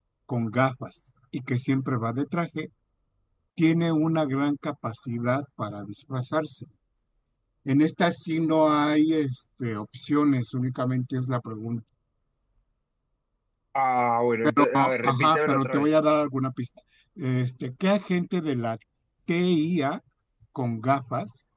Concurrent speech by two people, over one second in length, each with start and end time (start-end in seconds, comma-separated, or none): 14.6-15.9